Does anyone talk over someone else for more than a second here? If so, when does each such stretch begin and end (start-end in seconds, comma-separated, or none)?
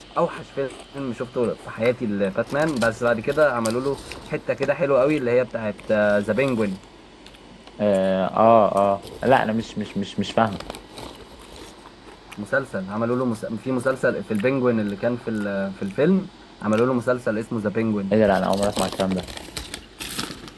none